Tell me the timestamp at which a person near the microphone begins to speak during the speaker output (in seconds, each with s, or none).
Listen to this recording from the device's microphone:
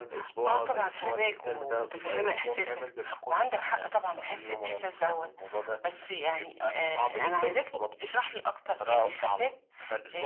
none